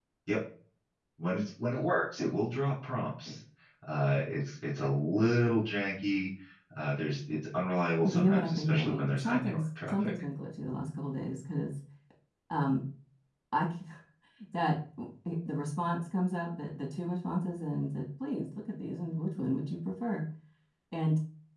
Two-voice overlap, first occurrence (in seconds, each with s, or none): 8.0 s